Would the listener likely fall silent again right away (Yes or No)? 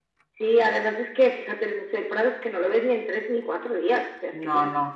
Yes